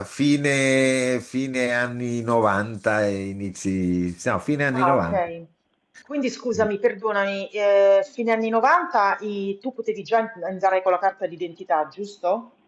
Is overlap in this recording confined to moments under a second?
Yes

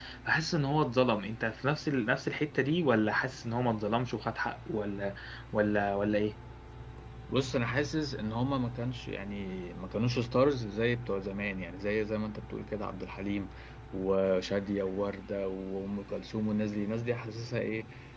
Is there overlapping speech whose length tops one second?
No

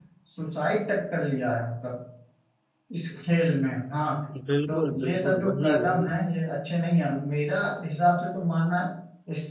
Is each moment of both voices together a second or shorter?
No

